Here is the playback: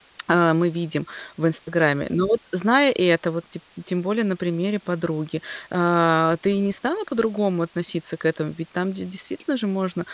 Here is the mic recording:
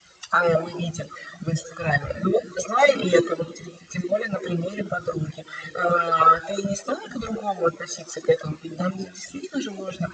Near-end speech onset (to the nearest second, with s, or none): none